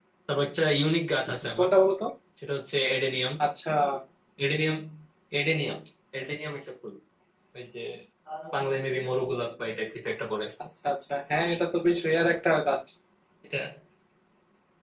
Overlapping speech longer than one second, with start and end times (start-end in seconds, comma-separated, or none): none